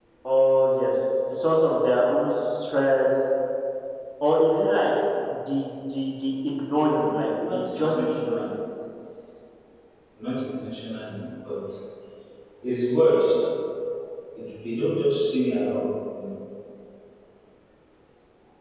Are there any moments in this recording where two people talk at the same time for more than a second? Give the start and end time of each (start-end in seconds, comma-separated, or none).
6.8-8.5